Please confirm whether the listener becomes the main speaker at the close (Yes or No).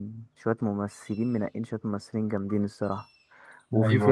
No